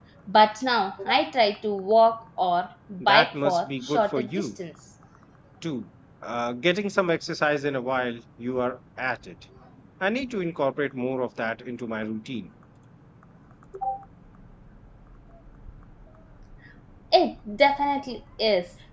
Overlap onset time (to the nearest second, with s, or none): 3 s